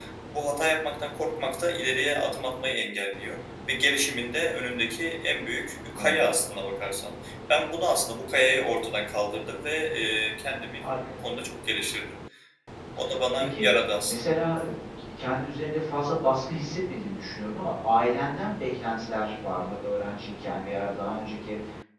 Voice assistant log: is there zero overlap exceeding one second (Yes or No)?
Yes